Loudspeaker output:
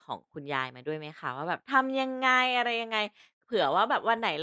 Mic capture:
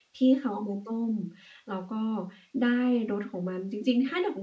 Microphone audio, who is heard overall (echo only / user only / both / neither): user only